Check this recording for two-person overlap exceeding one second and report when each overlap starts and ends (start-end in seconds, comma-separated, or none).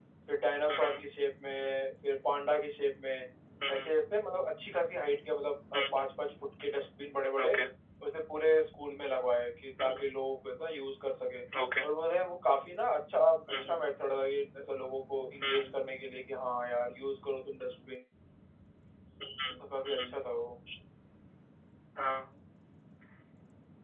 none